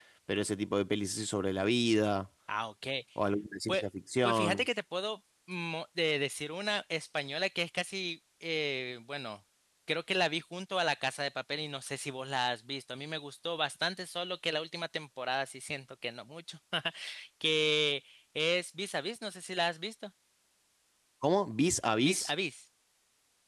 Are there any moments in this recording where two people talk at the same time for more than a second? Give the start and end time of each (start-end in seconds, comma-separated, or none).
none